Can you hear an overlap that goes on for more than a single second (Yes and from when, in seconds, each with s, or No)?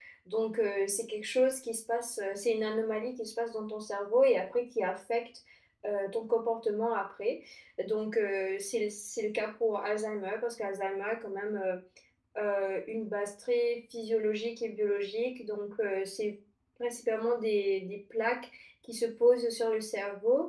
No